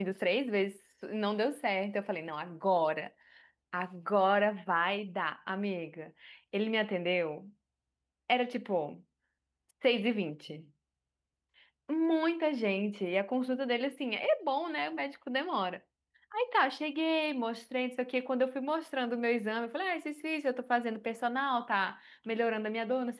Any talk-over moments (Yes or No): No